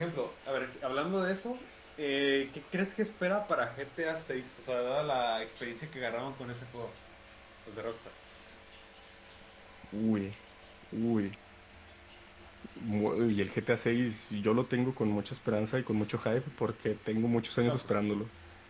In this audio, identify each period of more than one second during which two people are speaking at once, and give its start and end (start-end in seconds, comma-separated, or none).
none